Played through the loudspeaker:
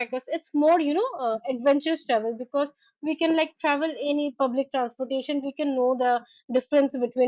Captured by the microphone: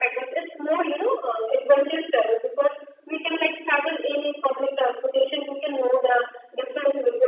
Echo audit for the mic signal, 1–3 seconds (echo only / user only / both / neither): echo only